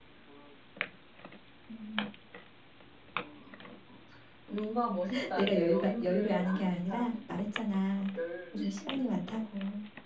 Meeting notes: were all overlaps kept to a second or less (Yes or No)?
No